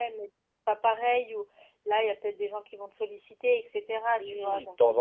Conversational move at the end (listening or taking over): taking over